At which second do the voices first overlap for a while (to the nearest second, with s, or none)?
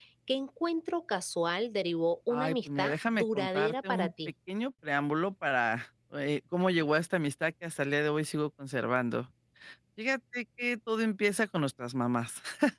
2 s